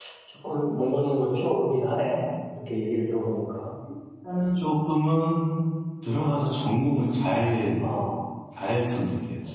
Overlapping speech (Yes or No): No